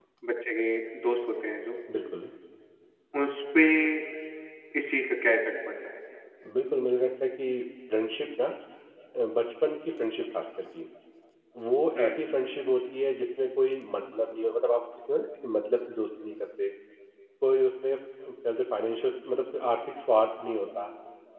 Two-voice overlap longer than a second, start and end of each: none

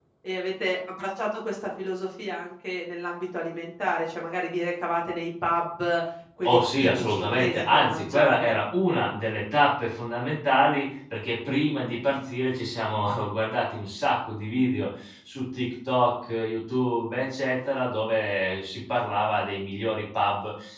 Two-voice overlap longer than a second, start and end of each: 6.4-8.5

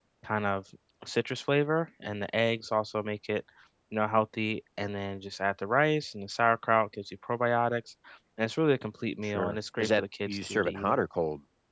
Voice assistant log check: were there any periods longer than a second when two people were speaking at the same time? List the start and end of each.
9.2-11.0

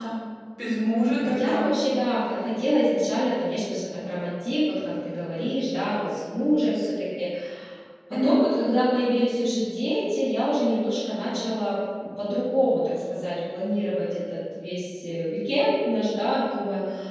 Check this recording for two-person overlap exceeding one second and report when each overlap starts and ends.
none

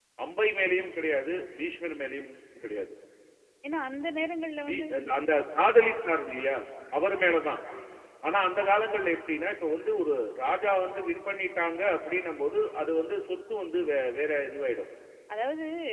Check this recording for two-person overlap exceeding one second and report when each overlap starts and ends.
none

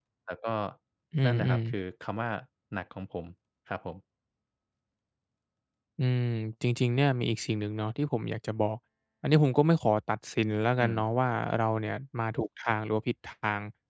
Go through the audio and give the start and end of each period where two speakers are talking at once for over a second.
none

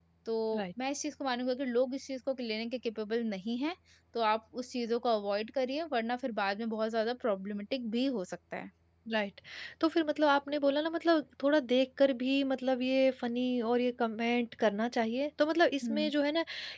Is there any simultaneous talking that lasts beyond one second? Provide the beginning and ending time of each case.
none

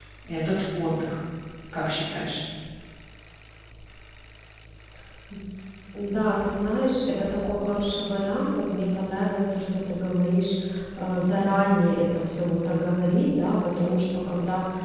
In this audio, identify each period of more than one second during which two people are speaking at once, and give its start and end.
none

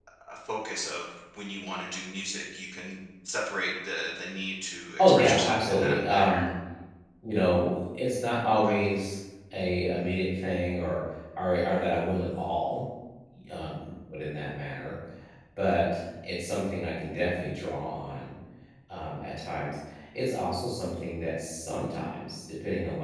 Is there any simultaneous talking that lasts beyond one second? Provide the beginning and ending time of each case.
5.0-6.5

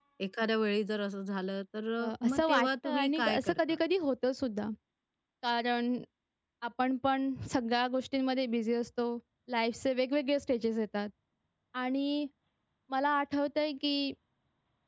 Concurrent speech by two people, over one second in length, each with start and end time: 2.0-3.8

